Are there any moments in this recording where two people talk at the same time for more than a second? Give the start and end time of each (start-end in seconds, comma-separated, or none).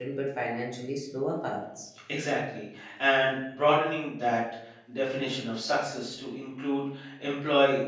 none